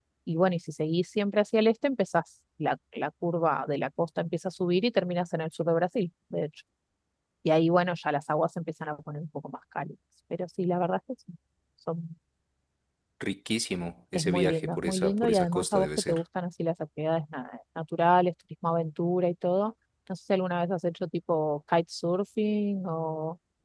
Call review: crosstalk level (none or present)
present